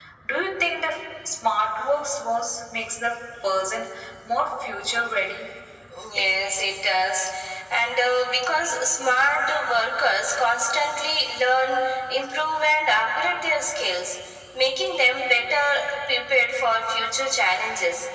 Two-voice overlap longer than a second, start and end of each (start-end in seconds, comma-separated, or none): none